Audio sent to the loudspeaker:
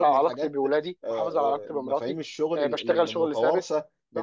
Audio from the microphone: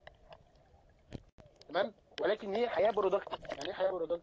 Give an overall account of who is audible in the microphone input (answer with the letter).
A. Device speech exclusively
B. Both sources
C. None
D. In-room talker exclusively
D